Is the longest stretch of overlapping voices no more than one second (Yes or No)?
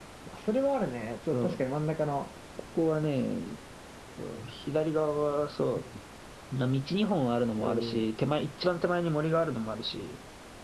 Yes